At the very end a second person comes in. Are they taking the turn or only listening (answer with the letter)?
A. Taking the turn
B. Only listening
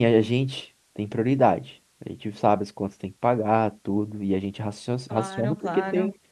B